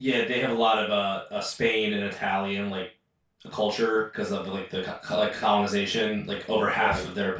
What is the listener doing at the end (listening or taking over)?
listening